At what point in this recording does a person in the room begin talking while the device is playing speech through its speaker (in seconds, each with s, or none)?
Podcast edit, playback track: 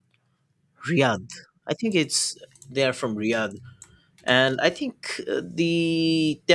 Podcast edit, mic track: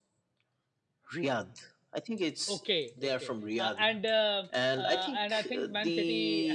2.5 s